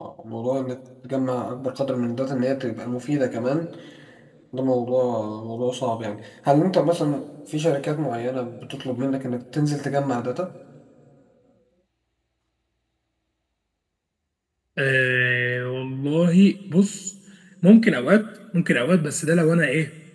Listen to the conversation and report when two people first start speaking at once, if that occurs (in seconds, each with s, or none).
none